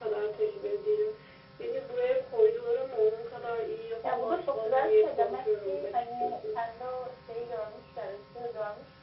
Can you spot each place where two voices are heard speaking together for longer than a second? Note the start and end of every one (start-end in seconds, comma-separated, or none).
4.1-6.6